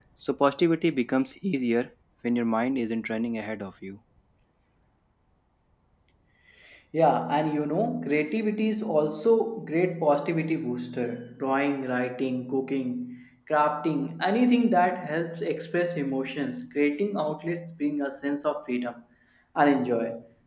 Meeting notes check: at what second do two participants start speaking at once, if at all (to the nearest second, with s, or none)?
none